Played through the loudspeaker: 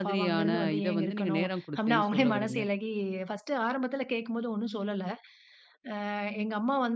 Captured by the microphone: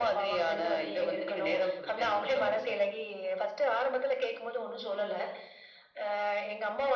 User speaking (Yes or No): No